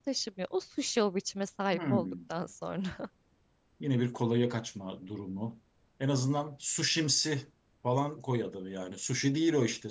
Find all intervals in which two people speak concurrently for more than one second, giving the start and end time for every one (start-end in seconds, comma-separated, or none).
none